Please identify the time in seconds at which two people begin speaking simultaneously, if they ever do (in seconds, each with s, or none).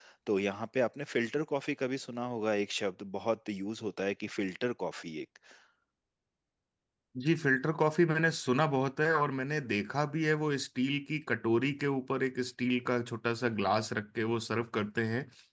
none